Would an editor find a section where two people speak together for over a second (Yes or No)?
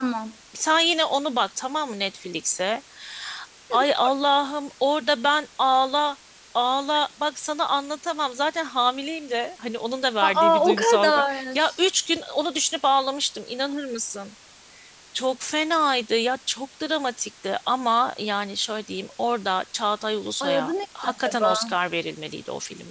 Yes